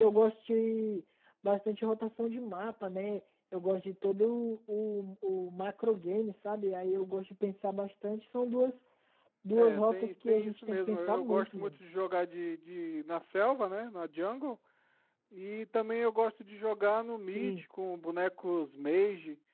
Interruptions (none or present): present